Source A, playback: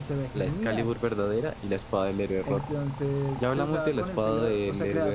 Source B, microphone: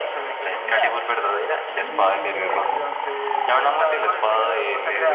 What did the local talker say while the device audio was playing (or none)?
el items Workshop.